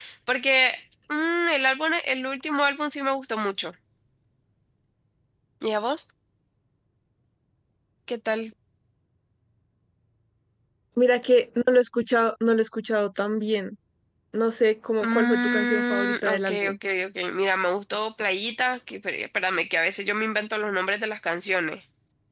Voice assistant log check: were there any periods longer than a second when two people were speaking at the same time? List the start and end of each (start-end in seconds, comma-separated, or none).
15.0-16.8